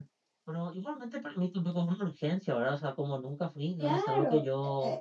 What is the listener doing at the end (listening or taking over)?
taking over